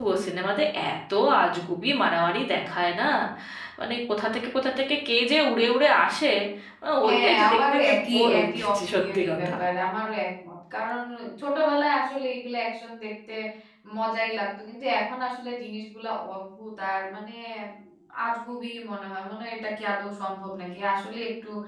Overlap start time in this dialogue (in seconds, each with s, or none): 7.1 s